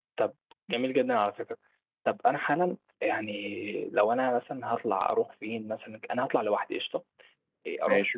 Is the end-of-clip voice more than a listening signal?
No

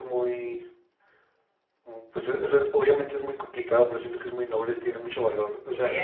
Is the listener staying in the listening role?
No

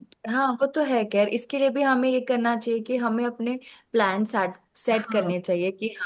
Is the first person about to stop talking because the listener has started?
No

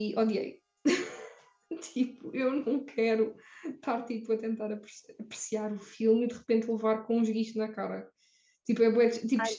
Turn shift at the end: Yes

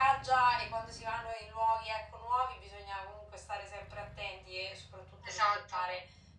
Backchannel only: Yes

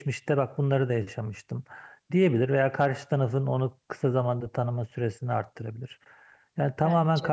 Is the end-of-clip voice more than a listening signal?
No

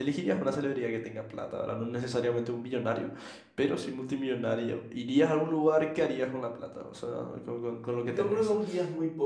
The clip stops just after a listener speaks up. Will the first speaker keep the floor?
No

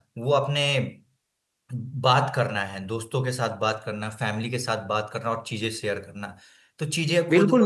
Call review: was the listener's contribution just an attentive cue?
No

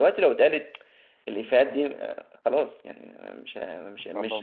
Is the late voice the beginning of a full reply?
No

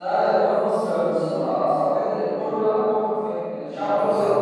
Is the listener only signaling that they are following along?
No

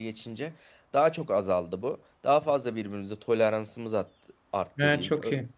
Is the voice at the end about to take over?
Yes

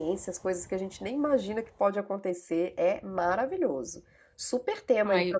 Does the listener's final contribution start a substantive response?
Yes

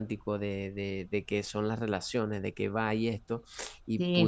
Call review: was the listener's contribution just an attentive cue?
Yes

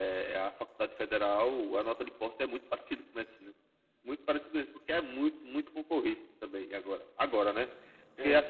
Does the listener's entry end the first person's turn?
No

